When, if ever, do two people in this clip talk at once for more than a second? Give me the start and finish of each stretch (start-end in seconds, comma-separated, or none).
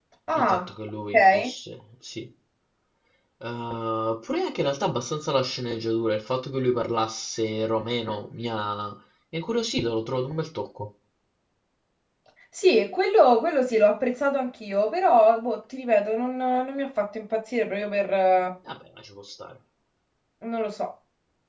none